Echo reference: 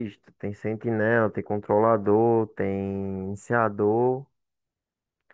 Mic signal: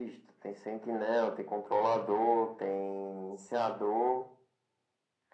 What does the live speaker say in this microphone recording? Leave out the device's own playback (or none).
none